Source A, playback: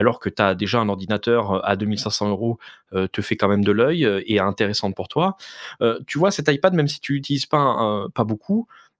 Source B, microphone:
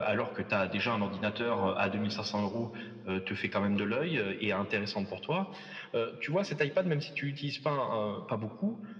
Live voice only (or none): none